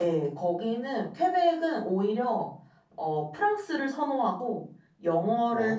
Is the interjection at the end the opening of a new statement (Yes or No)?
No